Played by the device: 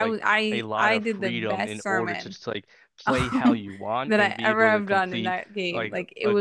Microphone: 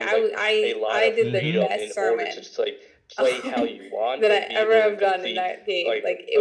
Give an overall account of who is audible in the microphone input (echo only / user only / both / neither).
both